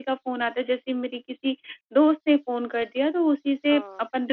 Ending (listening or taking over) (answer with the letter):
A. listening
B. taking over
A